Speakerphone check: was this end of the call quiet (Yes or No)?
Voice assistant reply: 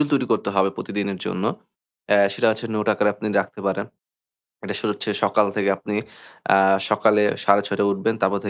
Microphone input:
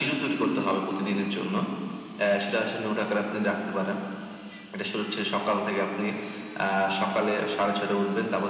Yes